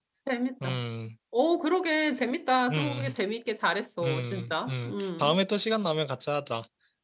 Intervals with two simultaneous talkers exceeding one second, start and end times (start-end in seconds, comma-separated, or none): 4.0-5.4